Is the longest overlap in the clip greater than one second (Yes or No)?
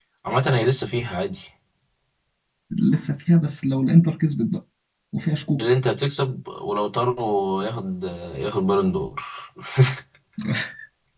No